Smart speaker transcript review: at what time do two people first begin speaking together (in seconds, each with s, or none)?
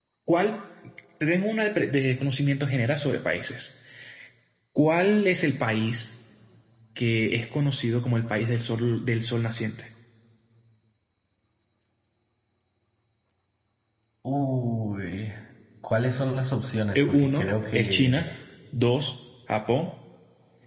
17.0 s